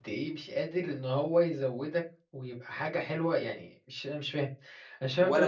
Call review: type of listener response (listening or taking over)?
taking over